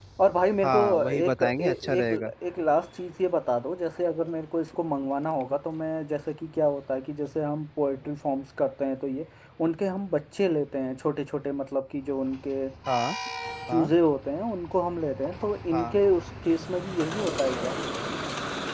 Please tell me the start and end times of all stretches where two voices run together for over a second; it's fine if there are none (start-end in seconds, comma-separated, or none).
0.6-2.3